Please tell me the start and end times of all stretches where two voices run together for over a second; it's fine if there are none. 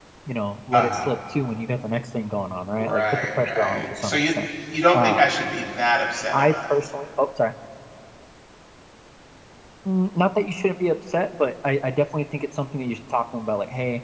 2.8-4.3

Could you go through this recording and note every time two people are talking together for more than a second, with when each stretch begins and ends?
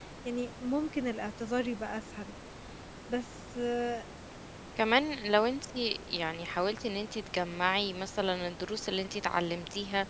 none

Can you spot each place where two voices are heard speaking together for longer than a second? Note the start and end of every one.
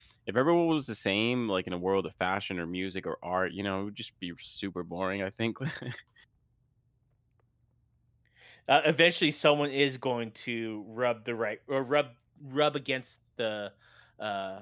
none

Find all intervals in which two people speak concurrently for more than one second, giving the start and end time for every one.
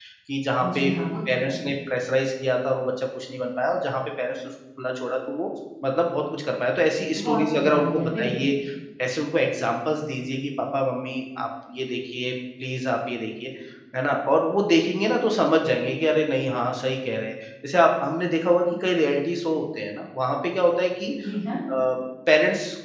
7.2-8.5

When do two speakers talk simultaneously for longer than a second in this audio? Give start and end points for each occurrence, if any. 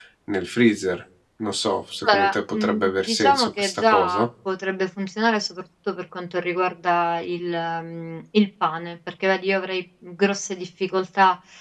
2.0-4.3

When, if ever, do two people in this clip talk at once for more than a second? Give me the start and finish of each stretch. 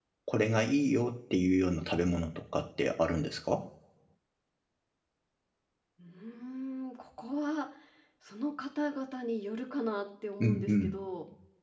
none

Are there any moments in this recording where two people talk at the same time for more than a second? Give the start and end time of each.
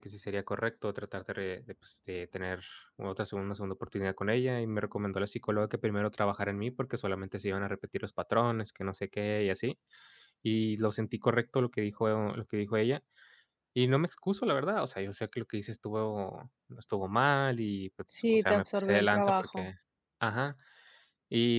18.1-19.7

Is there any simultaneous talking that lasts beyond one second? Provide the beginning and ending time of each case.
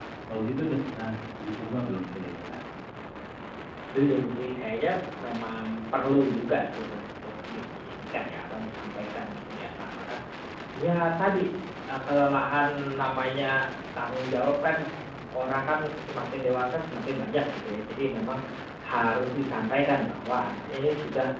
none

